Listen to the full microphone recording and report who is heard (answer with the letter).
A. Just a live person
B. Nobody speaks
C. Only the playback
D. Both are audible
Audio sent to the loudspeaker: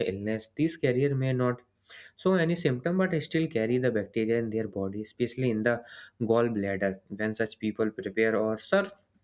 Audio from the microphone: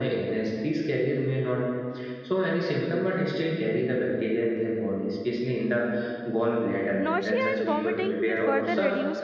D